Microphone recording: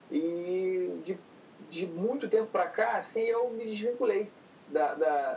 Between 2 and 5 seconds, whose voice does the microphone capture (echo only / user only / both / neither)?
echo only